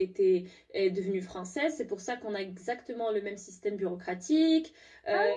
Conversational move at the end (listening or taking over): listening